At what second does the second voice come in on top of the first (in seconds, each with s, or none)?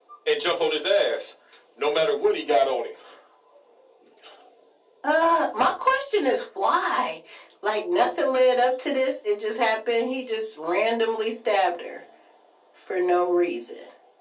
none